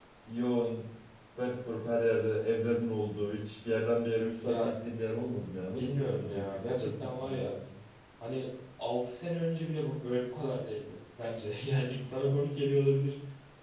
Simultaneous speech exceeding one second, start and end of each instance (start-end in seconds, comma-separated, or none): 5.8-7.5